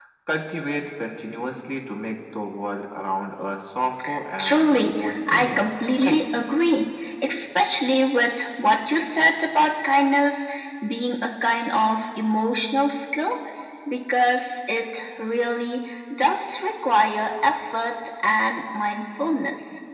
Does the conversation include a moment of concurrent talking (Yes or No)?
Yes